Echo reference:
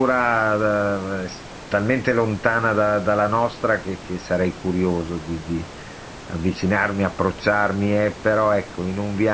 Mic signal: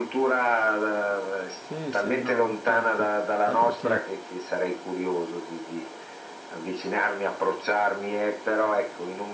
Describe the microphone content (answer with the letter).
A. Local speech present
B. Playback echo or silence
A